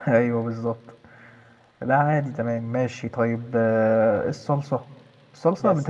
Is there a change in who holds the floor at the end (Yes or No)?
No